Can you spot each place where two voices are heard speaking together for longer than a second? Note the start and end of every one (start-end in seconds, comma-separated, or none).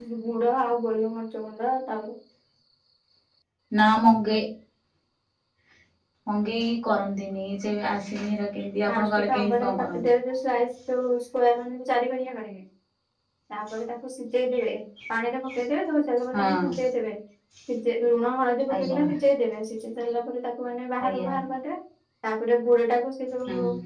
8.9-10.1